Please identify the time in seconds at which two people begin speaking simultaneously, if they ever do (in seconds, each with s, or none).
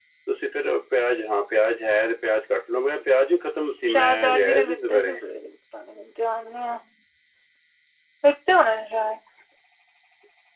3.8 s